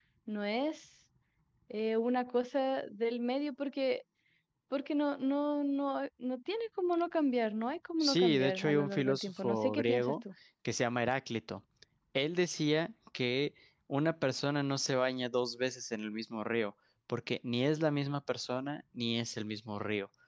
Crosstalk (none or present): present